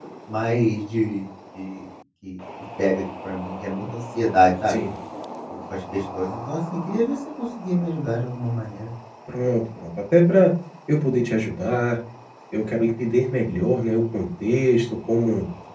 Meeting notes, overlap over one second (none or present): none